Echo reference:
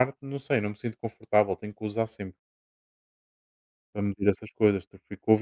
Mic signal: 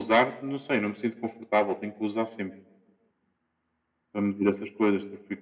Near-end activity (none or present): none